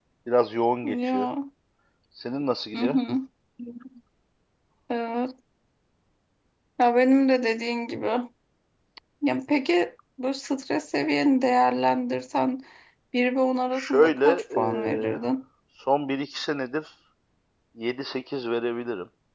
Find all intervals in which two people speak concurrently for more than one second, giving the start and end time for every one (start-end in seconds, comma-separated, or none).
13.7-15.2